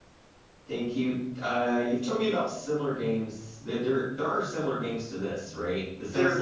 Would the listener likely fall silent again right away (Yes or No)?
Yes